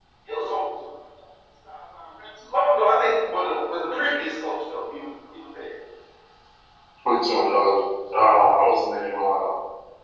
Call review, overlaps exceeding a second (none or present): none